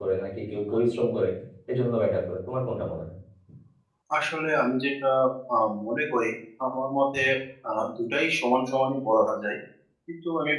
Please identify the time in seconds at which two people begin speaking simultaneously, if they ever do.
none

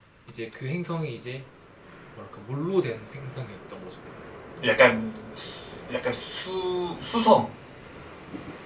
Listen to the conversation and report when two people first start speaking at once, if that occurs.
none

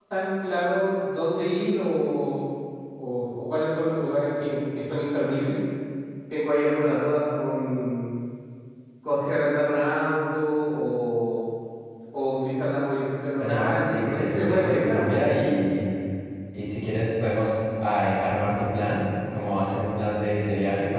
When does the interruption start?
13.4 s

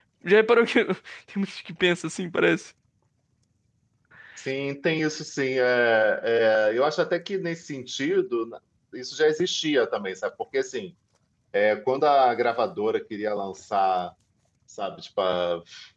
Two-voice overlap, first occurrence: none

